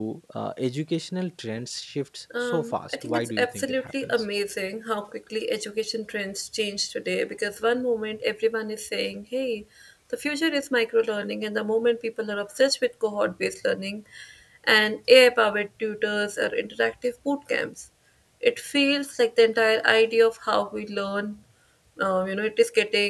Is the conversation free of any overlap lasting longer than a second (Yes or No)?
No